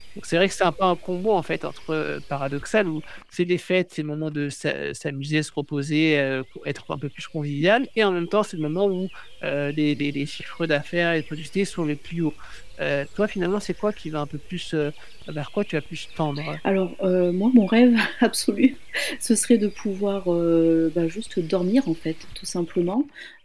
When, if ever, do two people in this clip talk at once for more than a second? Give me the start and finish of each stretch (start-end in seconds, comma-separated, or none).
none